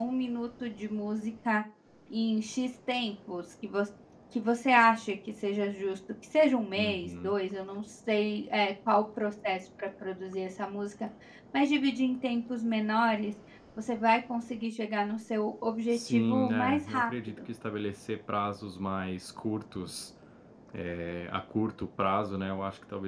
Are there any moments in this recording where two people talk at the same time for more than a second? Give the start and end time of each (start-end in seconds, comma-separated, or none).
15.9-17.4